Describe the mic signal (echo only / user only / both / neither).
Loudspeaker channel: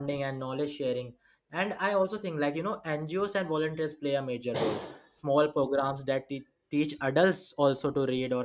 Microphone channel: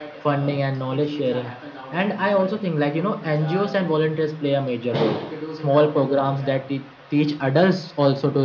both